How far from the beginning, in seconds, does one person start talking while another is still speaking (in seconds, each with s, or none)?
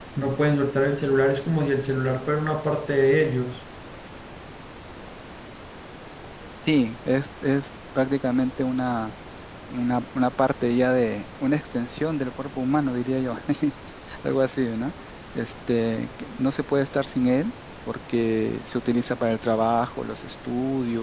none